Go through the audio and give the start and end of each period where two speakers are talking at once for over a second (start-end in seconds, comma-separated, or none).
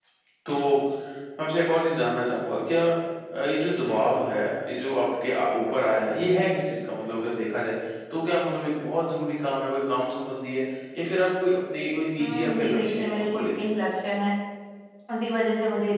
12.2-13.7